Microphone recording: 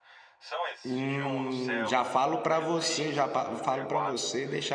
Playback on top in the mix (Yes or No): No